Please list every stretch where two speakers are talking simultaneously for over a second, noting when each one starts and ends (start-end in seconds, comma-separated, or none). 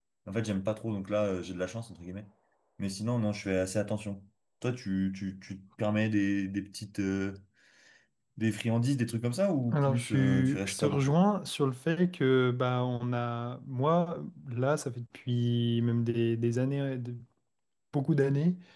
9.7-11.1